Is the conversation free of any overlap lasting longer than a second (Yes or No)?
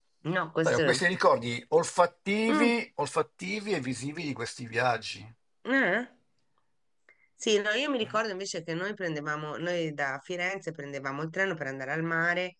Yes